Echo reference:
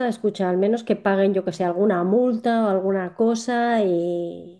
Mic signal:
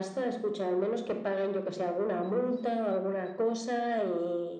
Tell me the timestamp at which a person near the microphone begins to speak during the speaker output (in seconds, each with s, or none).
none